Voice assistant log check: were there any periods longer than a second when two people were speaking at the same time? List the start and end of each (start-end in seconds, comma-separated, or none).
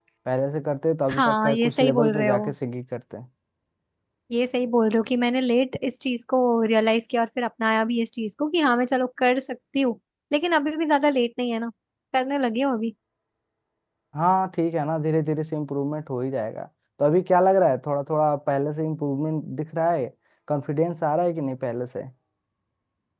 1.1-2.5